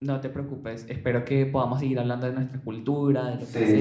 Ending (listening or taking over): taking over